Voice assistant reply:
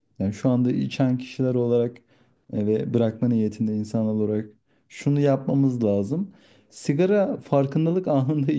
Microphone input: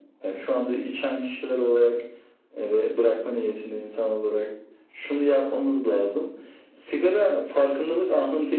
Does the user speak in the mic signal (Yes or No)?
No